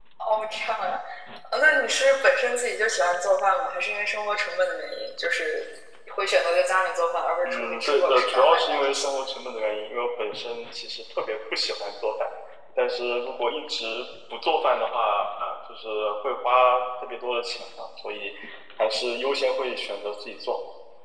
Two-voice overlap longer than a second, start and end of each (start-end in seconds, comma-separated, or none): 7.4-9.1